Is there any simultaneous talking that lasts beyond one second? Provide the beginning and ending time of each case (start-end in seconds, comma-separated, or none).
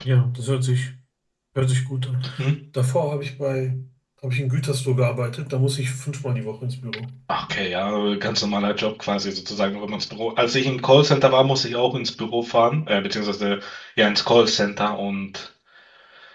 none